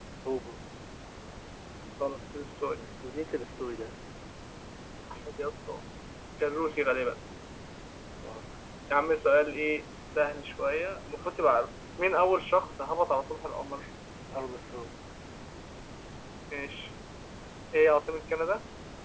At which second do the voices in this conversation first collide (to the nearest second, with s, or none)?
none